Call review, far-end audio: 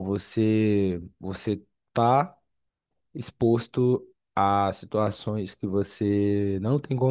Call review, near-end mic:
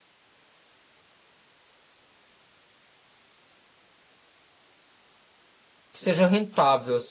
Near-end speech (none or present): present